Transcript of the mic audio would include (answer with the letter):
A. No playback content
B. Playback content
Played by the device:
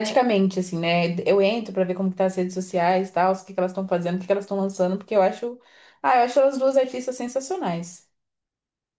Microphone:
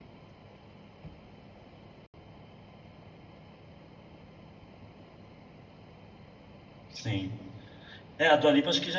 A